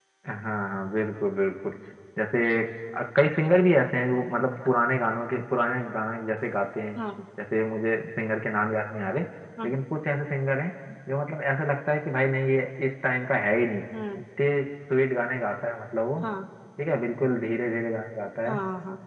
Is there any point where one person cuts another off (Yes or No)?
No